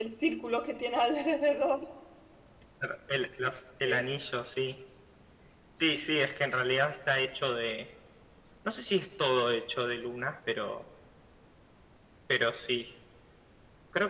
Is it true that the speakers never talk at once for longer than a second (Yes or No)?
Yes